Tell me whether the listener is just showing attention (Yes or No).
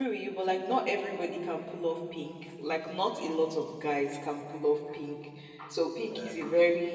Yes